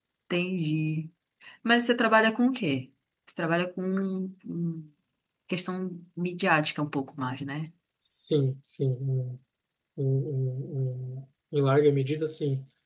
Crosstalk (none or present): none